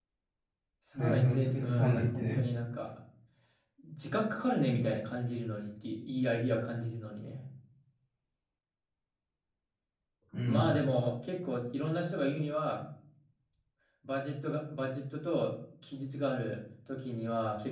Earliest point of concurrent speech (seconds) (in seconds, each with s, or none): 0.9 s